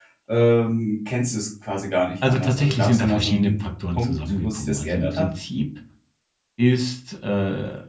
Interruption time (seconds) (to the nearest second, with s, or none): 2 s